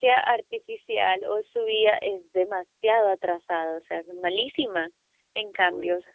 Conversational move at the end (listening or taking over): listening